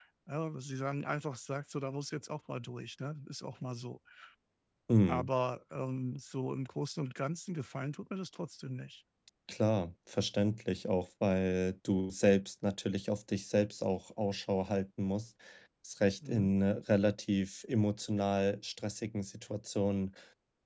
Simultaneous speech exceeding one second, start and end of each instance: none

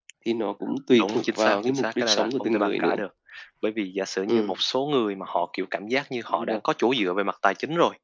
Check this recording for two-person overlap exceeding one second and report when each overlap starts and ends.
1.0-3.0

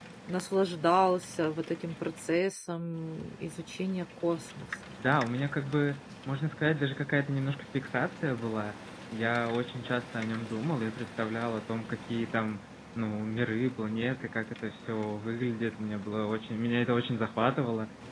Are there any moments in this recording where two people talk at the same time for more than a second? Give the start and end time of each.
none

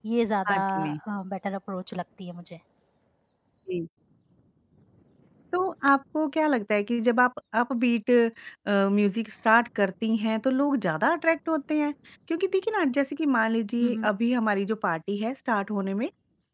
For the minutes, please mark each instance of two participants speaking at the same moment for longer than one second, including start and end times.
none

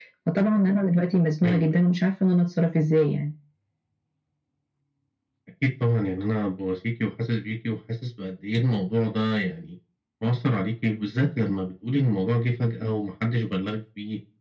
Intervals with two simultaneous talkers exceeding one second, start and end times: none

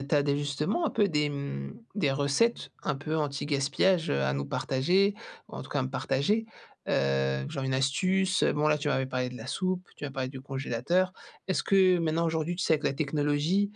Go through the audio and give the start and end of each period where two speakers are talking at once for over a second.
none

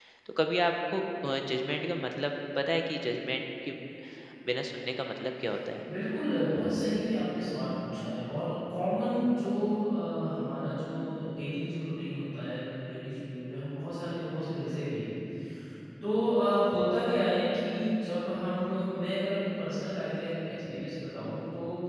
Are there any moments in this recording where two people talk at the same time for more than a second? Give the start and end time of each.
none

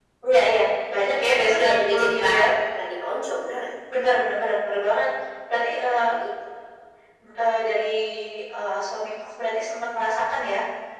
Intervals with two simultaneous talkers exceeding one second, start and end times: 1.2-2.5

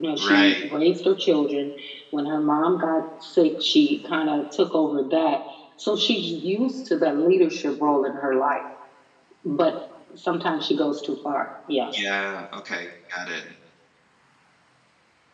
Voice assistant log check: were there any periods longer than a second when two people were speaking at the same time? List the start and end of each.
none

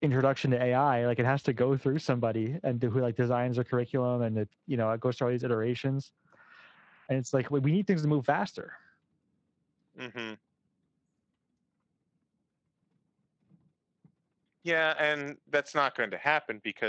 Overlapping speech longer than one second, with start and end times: none

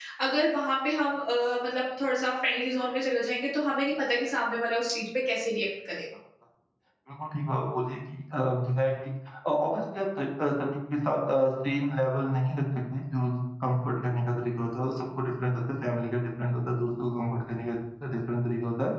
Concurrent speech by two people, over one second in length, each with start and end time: none

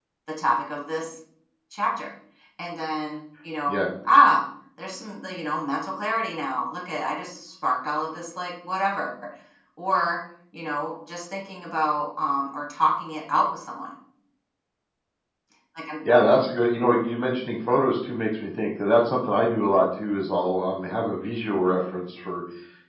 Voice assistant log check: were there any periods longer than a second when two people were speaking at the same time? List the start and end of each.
none

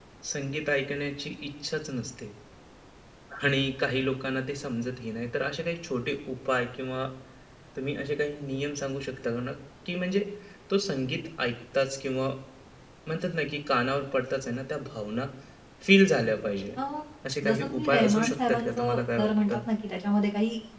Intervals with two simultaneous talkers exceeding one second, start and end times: 17.4-19.6

